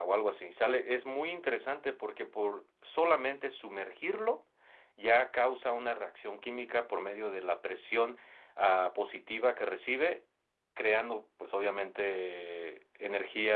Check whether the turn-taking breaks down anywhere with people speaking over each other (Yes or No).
No